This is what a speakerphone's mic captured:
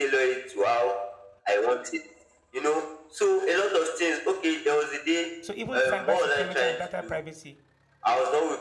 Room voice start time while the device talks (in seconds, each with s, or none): 5.4 s